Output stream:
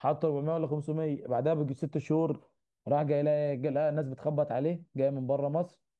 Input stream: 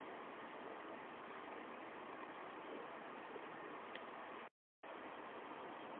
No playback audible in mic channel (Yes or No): Yes